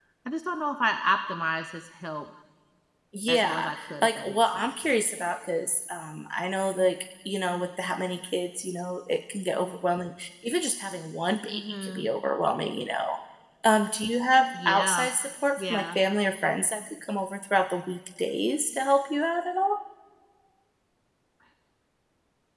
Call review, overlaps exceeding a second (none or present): present